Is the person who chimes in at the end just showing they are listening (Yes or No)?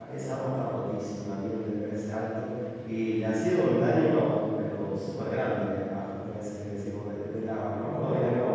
No